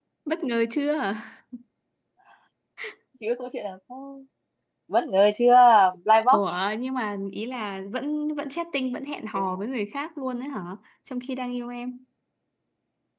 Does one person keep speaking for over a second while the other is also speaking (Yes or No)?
No